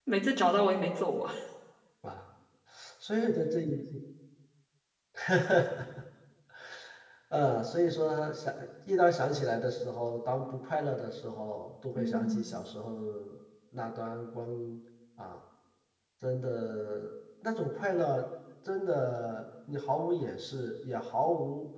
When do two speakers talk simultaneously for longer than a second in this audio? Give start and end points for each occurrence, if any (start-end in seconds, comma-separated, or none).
none